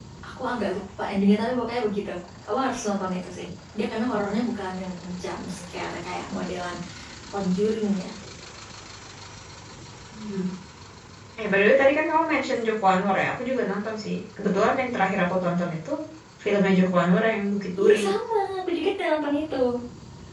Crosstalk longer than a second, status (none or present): none